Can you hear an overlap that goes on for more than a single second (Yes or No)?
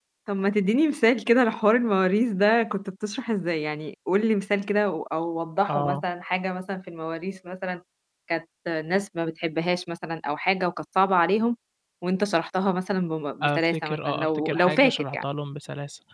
Yes